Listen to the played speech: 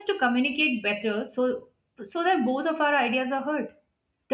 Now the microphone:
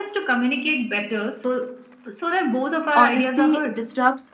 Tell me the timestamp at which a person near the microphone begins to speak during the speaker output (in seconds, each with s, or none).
2.9 s